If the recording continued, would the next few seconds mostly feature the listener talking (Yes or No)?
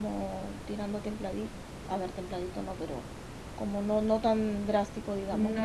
Yes